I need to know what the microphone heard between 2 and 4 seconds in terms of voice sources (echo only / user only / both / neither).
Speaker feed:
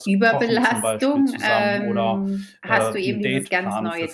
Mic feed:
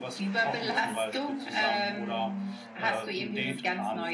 echo only